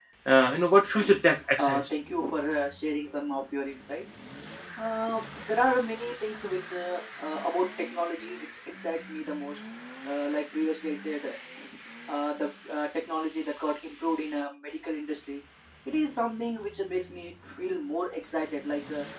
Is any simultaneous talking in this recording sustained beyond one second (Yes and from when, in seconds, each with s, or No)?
No